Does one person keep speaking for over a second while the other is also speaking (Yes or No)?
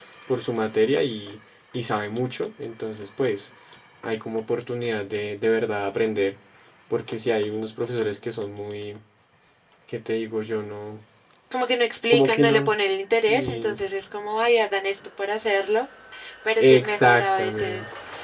Yes